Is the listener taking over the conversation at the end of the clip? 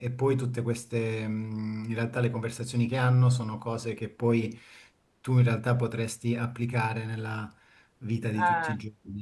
No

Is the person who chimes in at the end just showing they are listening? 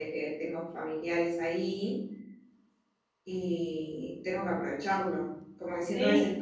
Yes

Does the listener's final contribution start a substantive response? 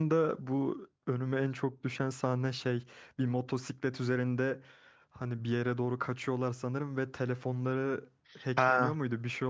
Yes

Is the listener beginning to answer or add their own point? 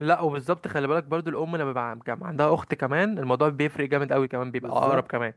Yes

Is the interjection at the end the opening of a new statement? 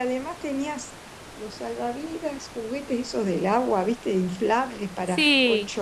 No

